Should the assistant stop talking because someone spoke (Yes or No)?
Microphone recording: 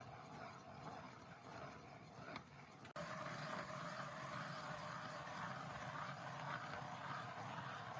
No